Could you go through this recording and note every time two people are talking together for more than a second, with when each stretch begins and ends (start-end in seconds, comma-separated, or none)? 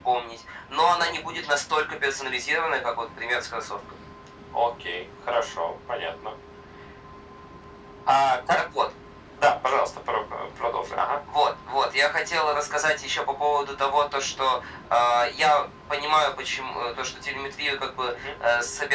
none